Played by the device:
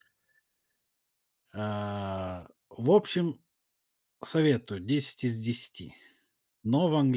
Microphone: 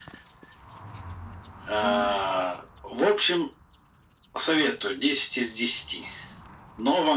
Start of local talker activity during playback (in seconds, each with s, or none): 1.8 s